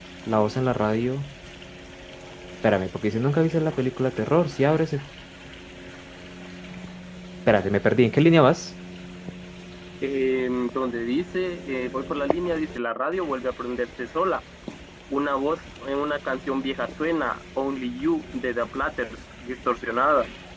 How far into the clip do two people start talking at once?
none

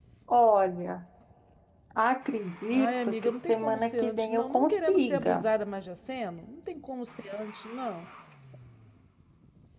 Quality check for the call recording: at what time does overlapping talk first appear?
2.7 s

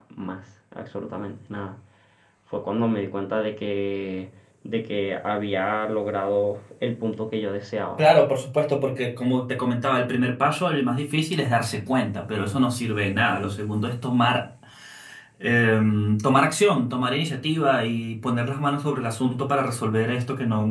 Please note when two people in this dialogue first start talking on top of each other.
none

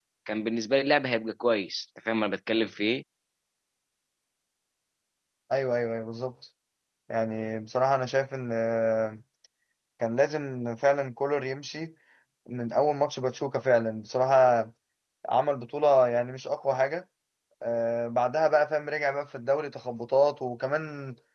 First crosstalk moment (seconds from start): none

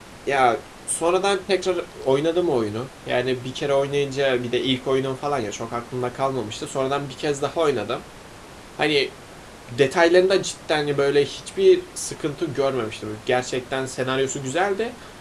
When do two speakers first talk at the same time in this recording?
none

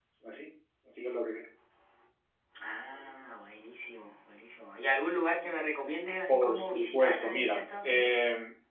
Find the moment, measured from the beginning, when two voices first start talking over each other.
6.3 s

